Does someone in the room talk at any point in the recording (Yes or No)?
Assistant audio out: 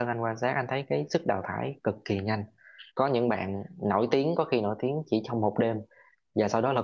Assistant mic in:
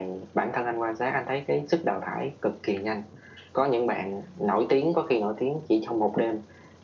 No